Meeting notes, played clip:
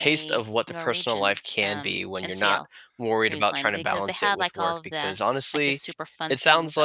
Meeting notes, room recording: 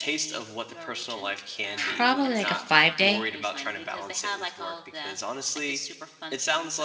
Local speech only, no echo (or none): Probably, like, a five-day.